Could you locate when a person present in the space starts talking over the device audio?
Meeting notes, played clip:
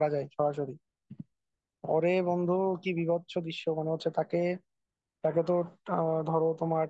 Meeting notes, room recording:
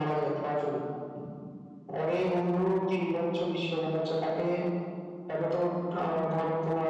none

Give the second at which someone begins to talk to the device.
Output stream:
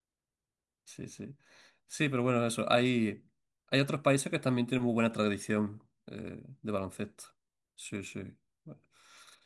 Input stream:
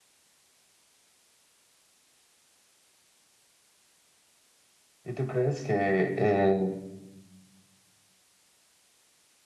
5 s

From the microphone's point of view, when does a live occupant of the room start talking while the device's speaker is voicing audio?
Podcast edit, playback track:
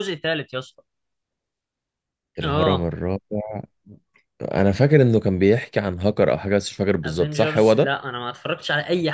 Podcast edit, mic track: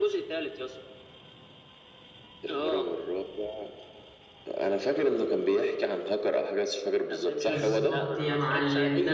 7 s

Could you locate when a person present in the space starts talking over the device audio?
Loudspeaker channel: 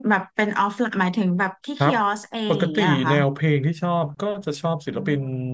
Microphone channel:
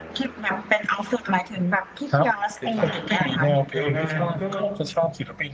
3 s

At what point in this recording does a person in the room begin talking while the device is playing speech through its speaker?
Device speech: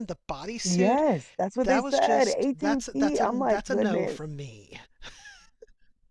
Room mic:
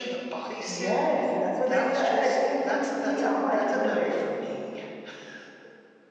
none

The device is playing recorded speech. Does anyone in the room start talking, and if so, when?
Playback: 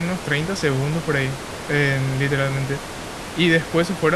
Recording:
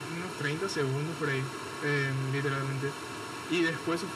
none

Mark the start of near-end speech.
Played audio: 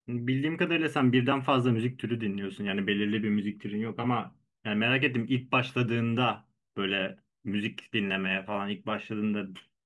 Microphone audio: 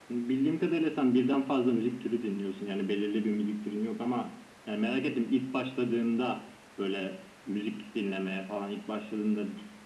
none

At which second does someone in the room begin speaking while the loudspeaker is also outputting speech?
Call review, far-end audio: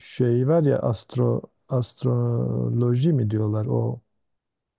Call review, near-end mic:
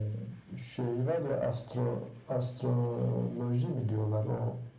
none

